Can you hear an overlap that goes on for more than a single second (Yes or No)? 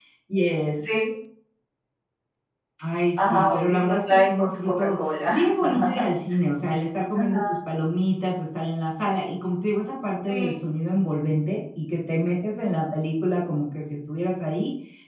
Yes